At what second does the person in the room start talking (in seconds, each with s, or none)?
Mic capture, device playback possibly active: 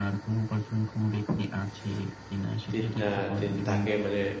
2.7 s